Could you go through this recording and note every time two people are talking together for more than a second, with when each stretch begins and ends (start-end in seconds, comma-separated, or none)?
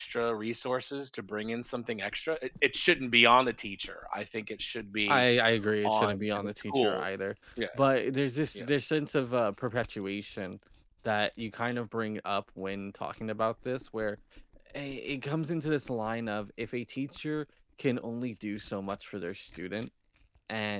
5.8-7.0